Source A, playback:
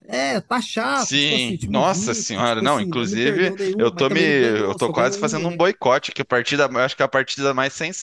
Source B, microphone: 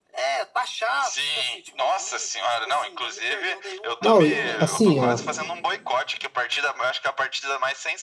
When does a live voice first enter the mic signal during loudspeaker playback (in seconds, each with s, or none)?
4.0 s